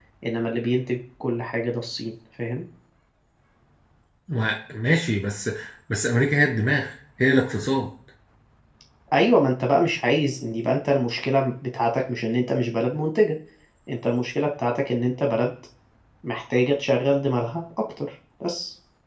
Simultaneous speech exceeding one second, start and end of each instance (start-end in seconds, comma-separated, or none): none